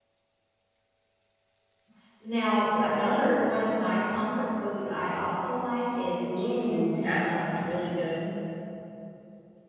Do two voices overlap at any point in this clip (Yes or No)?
Yes